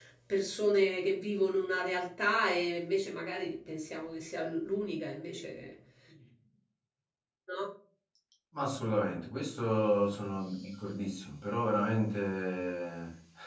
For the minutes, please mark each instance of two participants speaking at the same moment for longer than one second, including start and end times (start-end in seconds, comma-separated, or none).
none